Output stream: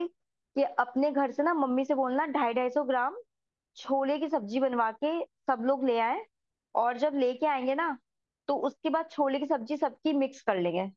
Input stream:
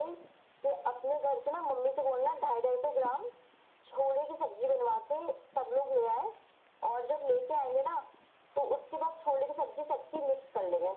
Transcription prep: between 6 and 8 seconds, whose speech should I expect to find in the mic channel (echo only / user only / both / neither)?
echo only